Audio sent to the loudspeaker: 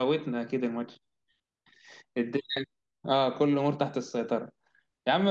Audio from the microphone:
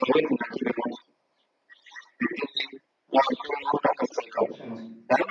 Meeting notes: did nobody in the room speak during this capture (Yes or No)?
No